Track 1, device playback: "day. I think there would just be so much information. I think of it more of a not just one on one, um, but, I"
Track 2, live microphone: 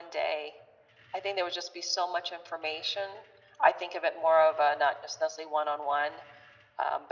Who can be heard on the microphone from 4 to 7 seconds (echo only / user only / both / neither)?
echo only